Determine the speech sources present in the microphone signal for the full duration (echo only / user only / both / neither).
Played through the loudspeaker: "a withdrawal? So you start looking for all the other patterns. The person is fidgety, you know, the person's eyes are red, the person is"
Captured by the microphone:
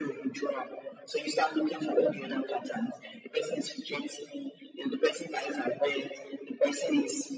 echo only